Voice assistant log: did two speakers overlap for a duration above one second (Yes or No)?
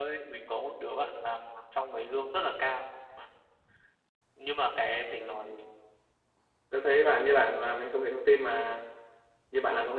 No